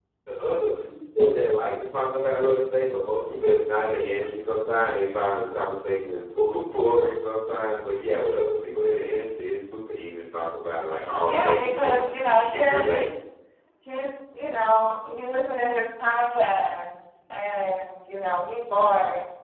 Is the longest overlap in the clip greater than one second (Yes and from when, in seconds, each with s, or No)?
Yes, from 11.2 s